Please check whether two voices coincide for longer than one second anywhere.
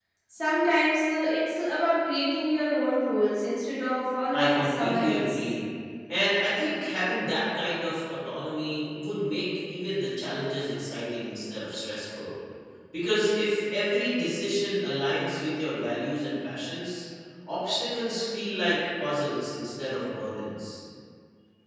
Yes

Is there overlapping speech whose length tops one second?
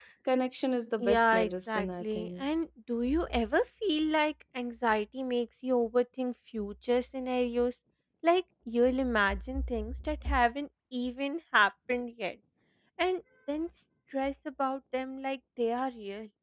Yes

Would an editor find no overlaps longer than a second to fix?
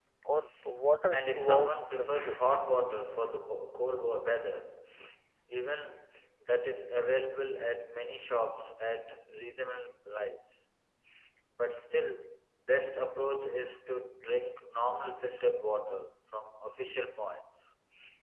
No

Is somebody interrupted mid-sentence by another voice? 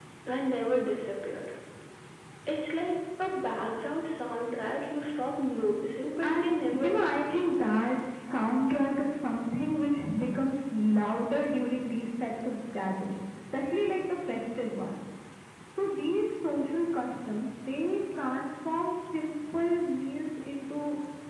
Yes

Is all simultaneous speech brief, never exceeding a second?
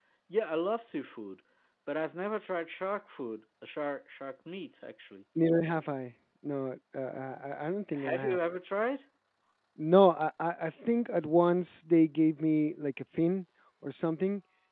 Yes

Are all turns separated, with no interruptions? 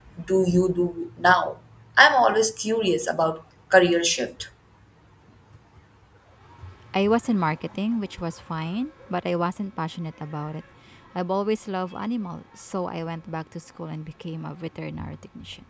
Yes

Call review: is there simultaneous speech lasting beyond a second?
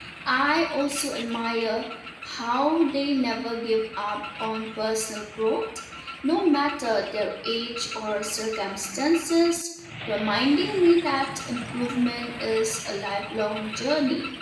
No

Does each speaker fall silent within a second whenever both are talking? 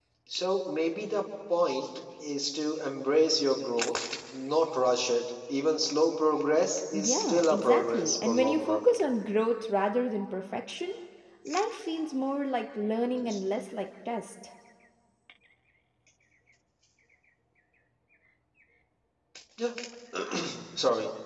No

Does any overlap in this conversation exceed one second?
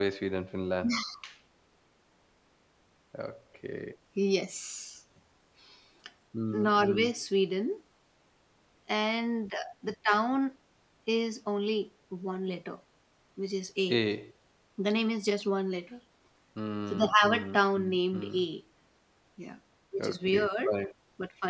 Yes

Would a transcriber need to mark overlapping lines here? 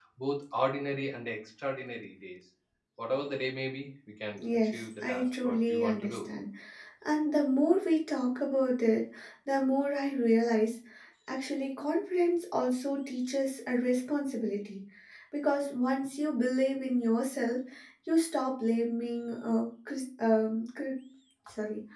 Yes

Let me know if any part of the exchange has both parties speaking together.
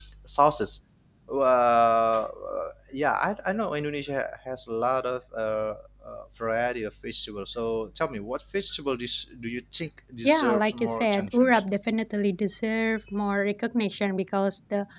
Yes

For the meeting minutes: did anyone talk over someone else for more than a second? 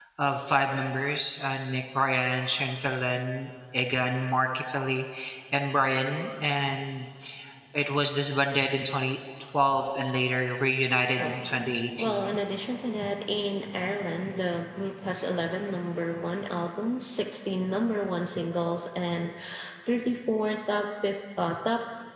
No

